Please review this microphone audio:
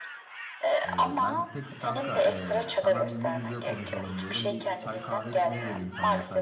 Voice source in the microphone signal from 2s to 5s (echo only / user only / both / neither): both